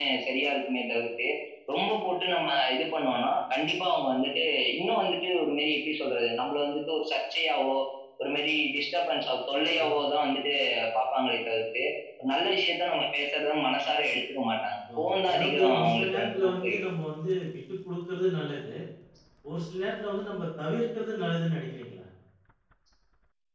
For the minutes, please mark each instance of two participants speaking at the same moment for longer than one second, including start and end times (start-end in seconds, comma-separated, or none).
15.0-16.8